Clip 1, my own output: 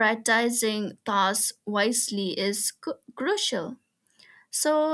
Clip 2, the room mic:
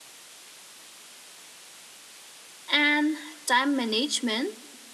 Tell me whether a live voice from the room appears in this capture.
Yes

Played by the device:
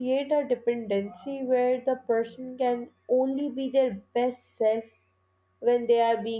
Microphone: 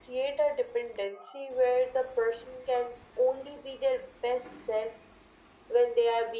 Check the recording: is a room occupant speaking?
No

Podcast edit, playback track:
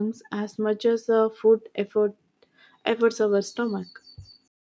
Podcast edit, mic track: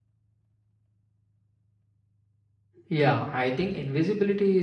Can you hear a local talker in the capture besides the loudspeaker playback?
Yes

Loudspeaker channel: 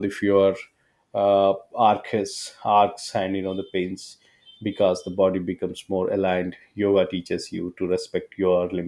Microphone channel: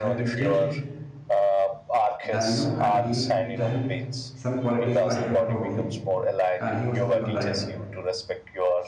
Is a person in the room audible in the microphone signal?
Yes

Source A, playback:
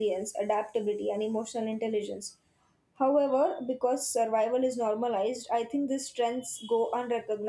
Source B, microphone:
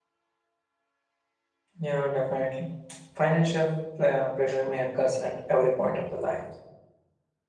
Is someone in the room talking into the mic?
Yes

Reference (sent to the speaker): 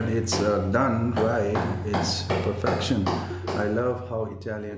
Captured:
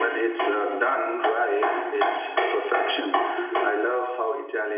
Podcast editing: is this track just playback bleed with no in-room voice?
Yes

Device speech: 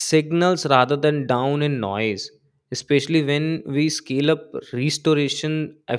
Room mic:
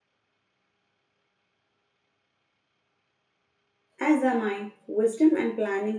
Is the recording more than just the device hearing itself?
Yes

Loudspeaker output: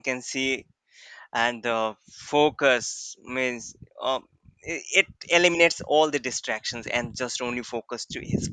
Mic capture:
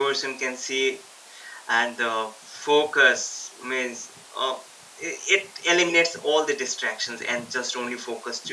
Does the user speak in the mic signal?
No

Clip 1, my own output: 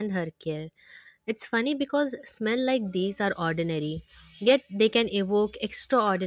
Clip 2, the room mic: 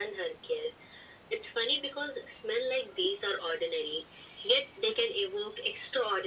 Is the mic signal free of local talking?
Yes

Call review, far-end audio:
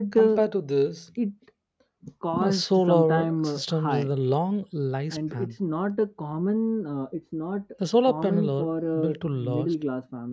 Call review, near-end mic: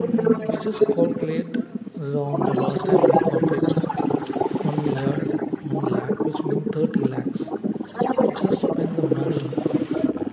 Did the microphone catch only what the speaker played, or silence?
No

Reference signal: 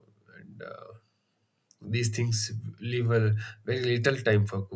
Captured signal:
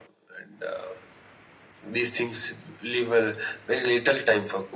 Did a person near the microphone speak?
No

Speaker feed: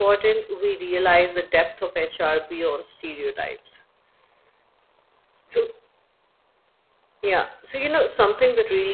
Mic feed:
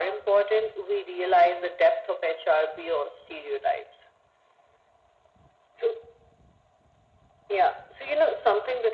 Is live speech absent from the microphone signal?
Yes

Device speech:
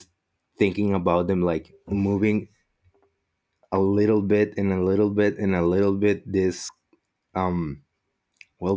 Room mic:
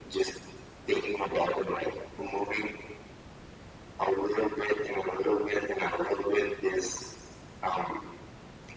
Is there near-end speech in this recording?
No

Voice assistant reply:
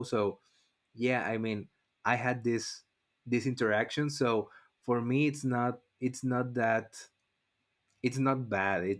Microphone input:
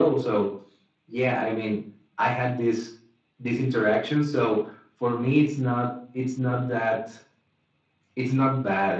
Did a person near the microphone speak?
No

